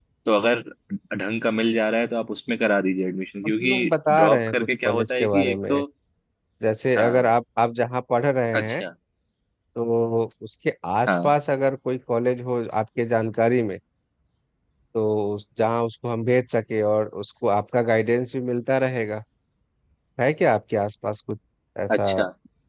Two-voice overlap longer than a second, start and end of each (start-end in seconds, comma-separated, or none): 3.6-5.8